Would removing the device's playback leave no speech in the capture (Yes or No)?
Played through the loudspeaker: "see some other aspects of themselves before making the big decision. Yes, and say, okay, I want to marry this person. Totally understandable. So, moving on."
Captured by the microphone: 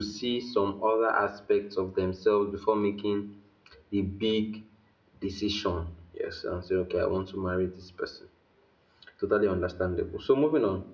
Yes